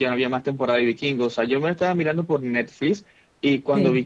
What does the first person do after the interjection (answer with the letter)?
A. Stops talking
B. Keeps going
B